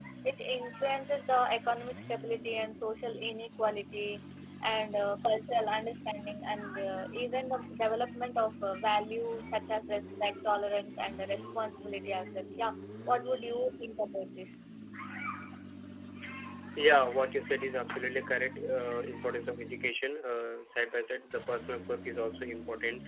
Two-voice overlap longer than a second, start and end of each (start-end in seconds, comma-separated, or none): none